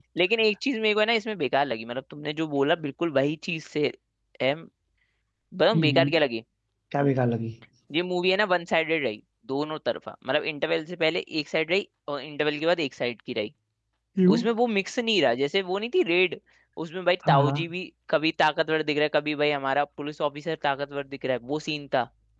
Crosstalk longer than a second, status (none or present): none